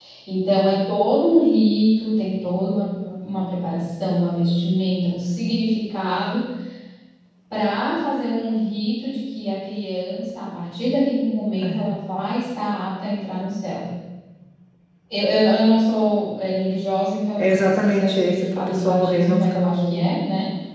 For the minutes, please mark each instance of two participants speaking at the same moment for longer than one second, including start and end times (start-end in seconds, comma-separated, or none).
17.4-20.1